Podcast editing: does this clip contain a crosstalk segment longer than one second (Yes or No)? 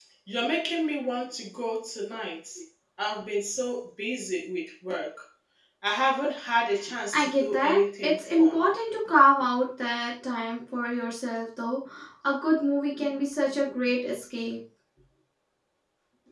Yes